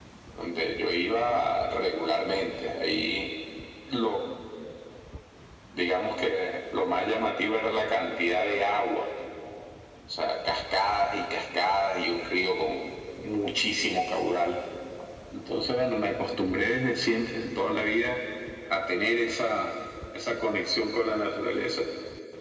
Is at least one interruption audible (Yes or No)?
No